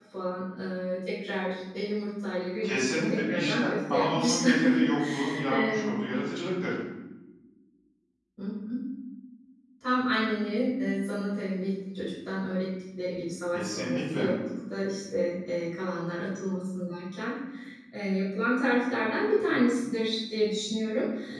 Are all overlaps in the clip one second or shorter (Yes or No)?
No